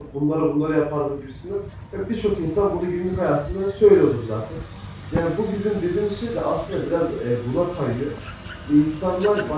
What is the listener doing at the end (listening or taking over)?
listening